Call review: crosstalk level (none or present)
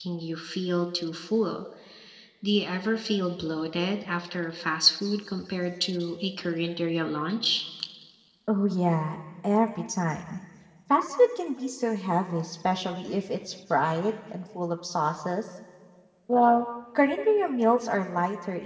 none